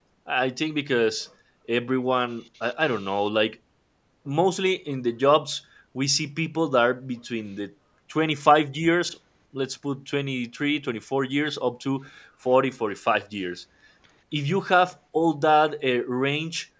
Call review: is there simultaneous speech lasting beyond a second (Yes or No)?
No